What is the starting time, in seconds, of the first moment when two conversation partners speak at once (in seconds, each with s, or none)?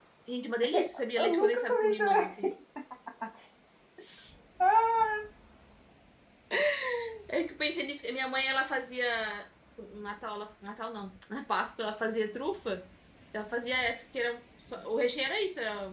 0.6 s